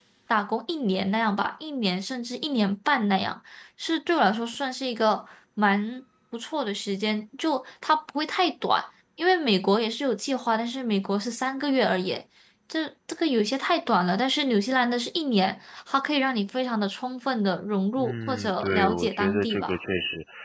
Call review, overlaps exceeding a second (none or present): present